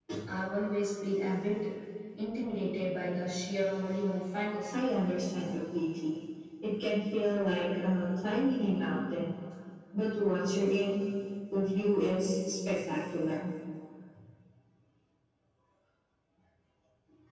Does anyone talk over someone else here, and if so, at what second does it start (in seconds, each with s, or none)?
none